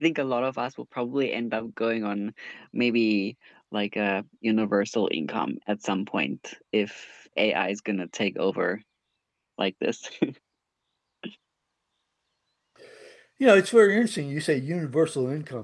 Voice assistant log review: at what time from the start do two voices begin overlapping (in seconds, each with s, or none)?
none